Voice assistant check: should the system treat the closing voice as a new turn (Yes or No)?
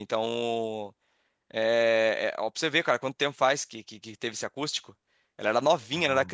No